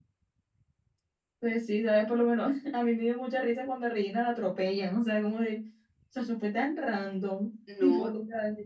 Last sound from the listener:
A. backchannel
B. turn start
A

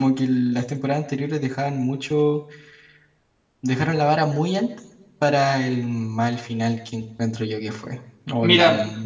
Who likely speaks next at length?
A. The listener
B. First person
B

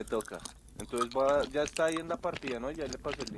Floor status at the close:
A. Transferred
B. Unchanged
A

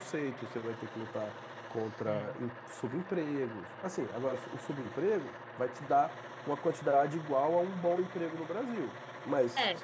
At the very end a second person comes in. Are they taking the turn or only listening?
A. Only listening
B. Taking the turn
A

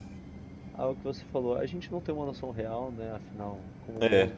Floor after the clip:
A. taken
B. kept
B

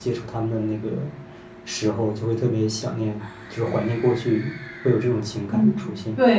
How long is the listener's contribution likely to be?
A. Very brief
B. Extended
B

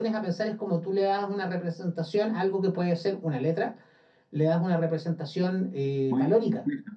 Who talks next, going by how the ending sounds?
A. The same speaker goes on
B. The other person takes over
B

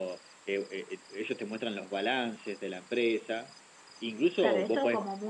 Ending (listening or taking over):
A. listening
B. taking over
B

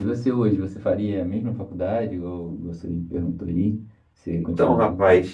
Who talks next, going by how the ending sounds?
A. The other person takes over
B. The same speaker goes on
A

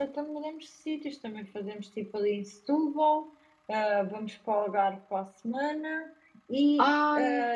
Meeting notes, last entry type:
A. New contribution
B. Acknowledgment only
B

